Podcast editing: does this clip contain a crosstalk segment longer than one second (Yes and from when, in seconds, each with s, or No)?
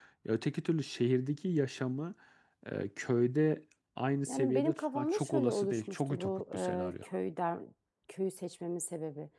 Yes, from 4.3 s